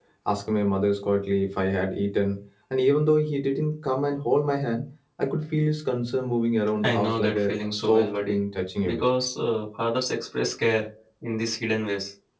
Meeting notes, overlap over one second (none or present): present